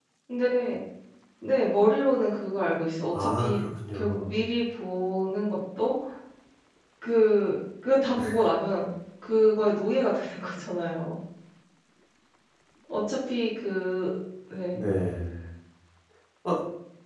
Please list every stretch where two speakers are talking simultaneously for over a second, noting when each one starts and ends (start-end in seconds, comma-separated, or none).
3.1-4.4